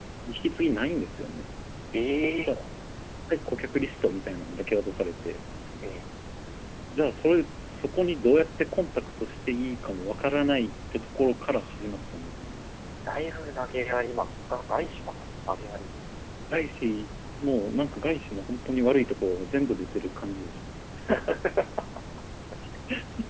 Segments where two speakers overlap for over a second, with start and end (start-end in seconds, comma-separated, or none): none